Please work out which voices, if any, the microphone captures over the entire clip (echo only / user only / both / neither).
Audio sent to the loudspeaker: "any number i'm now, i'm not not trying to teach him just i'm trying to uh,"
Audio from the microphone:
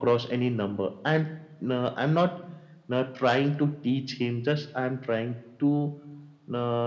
echo only